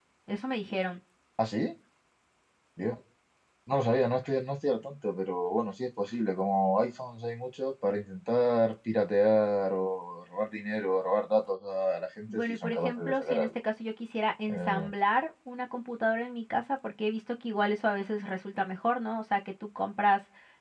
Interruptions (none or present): present